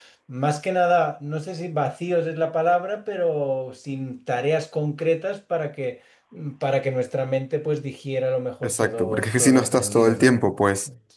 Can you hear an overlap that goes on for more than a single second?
Yes, from 8.6 s

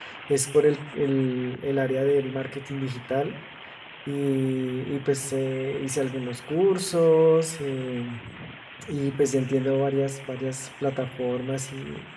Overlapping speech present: No

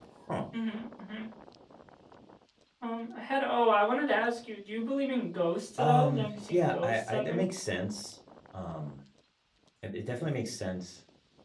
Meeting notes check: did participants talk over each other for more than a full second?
Yes, from 5.8 s

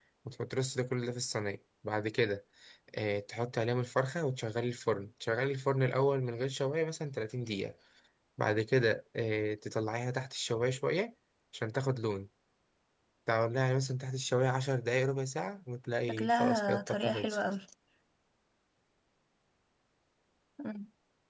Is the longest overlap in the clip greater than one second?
Yes, from 16.1 s

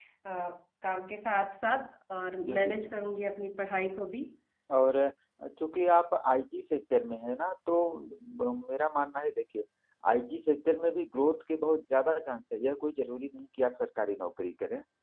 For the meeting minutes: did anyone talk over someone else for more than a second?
No

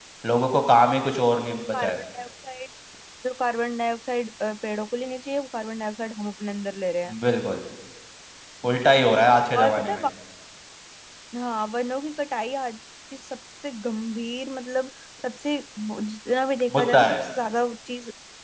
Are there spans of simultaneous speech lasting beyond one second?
No

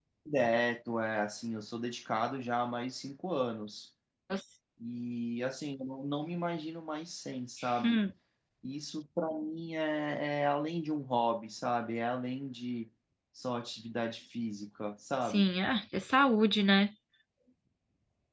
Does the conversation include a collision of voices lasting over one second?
No

